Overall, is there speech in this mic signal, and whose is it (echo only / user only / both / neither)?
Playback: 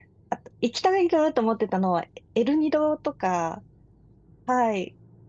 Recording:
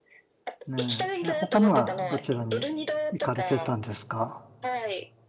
both